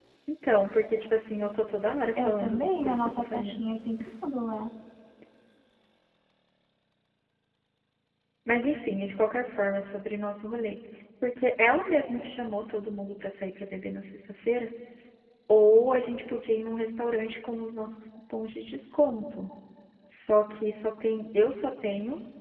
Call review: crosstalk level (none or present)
present